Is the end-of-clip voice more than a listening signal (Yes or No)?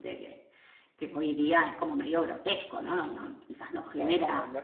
Yes